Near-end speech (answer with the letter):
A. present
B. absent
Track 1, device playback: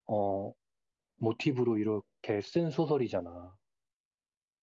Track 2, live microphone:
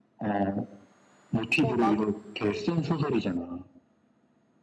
A